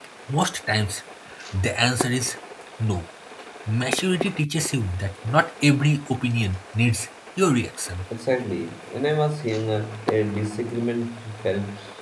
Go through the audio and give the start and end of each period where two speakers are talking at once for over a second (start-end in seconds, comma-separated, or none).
none